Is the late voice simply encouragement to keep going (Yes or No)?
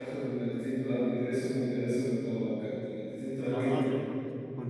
No